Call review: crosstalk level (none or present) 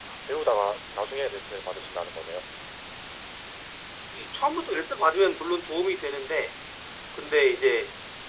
none